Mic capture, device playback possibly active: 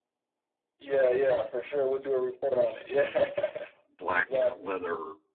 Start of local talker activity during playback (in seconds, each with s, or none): 4.0 s